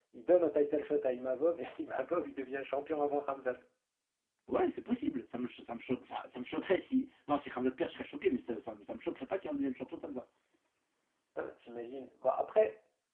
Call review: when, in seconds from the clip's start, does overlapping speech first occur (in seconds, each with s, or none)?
none